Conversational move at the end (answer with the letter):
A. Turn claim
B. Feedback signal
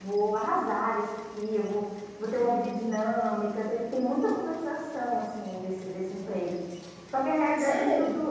B